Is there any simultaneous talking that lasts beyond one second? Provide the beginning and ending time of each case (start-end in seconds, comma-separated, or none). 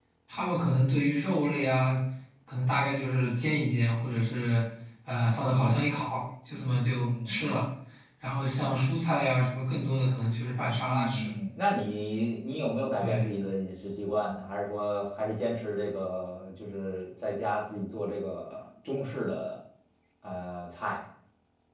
none